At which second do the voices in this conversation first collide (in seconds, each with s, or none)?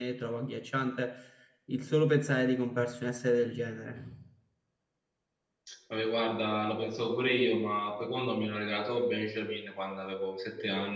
none